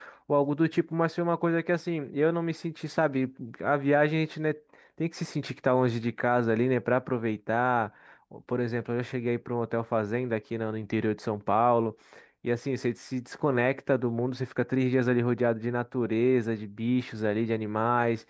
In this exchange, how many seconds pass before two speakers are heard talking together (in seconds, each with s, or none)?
none